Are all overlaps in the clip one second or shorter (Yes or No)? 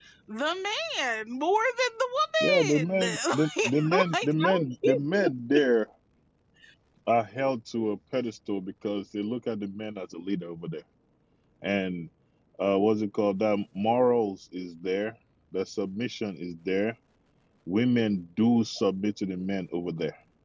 No